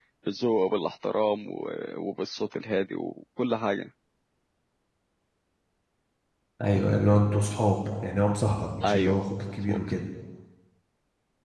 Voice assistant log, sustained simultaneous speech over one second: none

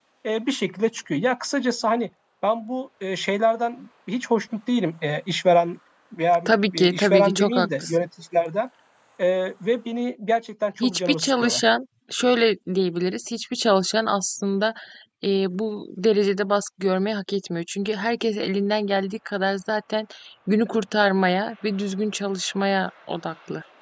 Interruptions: present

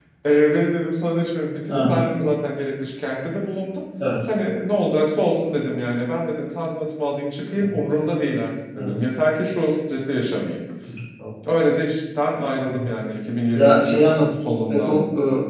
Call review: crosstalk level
present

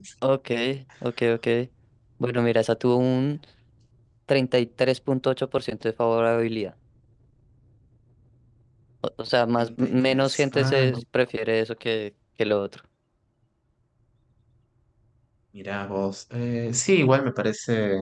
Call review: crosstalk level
present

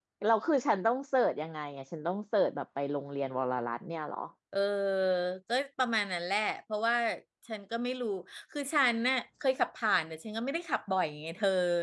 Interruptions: none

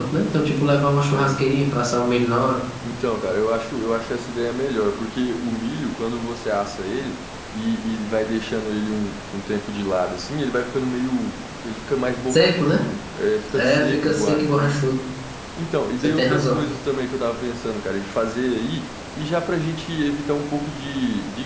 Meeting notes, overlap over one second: present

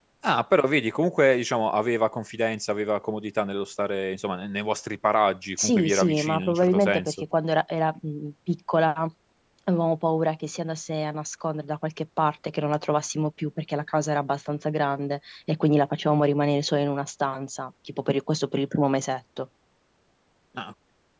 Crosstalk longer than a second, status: present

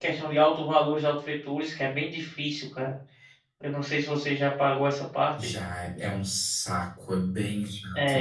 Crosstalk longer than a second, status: none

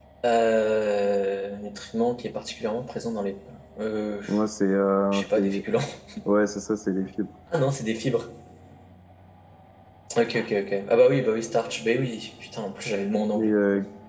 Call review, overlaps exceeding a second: none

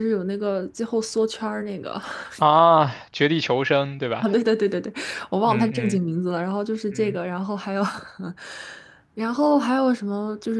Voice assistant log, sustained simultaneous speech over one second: none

